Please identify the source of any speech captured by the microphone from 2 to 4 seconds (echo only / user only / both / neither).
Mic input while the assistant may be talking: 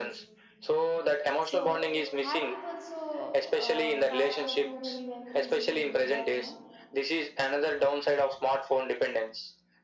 both